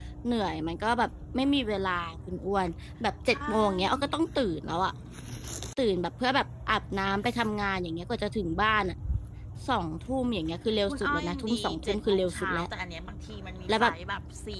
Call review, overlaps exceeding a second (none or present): present